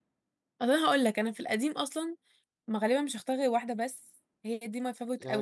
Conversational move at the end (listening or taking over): taking over